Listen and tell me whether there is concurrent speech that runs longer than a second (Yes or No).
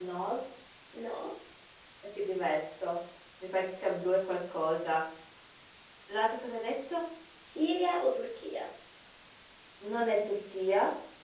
No